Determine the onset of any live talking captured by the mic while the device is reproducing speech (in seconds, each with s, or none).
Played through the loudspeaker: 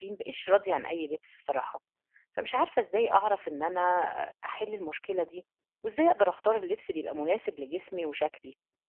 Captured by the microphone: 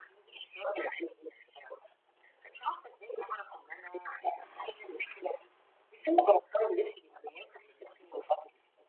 none